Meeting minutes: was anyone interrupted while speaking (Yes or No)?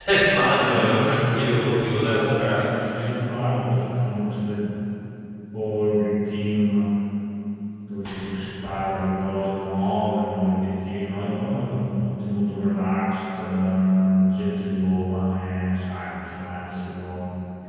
Yes